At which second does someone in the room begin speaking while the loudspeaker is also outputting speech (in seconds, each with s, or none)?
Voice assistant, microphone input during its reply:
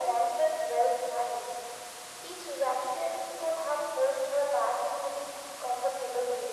none